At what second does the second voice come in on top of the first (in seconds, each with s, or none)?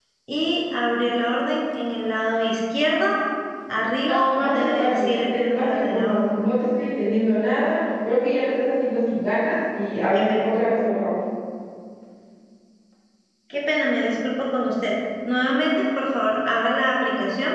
4.1 s